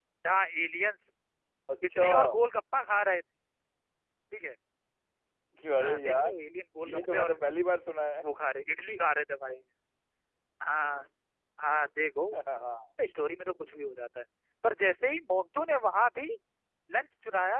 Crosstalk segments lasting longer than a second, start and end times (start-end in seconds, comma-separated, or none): none